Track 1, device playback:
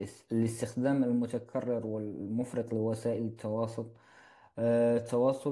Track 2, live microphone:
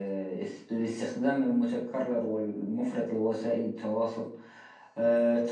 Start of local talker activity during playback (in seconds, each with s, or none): none